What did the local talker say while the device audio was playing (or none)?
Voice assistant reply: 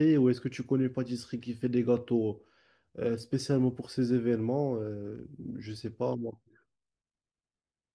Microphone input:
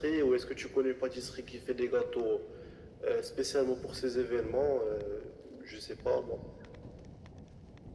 none